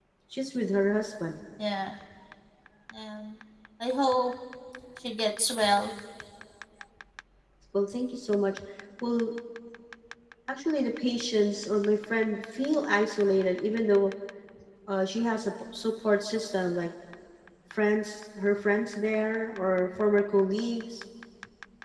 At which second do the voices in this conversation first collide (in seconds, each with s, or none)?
none